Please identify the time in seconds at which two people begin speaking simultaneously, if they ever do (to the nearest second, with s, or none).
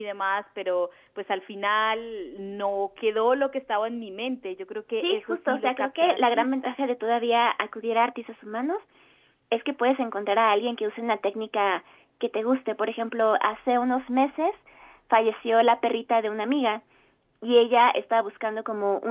5 s